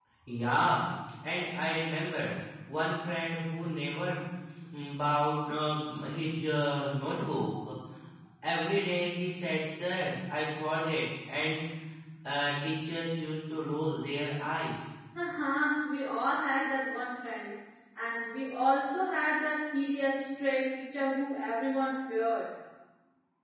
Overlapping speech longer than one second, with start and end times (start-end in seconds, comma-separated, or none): none